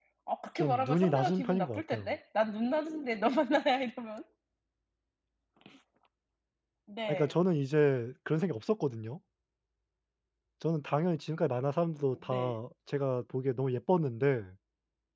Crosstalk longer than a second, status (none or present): present